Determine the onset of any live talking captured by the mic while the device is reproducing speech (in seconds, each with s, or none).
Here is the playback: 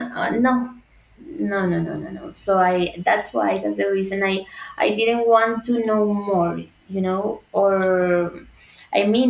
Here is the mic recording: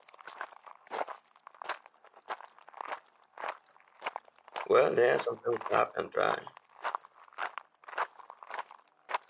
4.6 s